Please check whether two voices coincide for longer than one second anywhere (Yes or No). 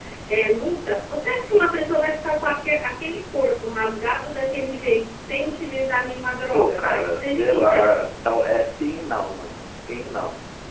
Yes